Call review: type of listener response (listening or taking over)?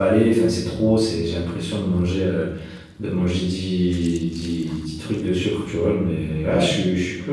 listening